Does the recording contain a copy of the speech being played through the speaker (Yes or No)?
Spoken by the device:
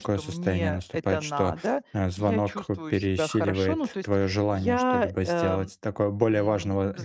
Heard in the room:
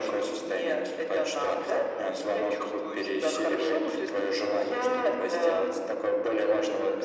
Yes